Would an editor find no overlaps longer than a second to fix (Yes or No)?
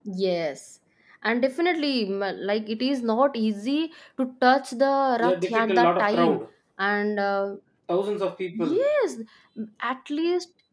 No